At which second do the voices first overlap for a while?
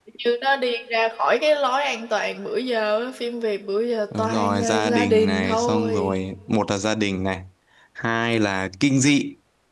4.1 s

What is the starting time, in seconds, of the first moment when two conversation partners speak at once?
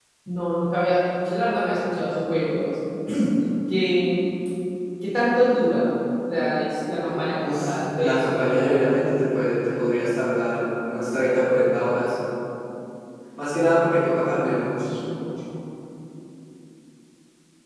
7.0 s

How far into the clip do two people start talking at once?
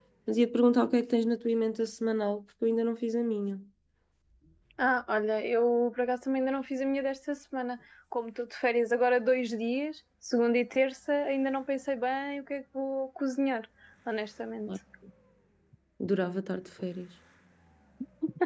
none

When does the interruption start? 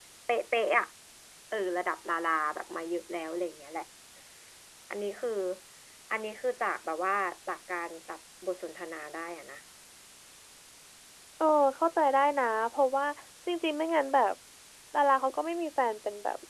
none

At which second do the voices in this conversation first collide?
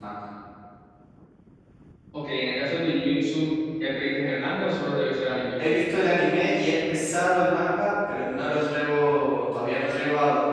none

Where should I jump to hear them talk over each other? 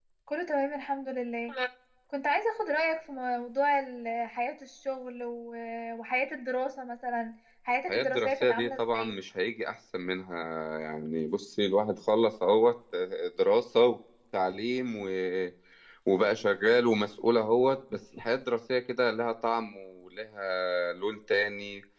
7.9 s

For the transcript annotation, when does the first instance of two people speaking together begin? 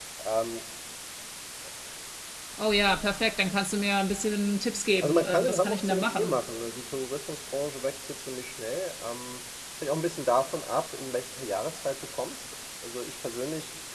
5.0 s

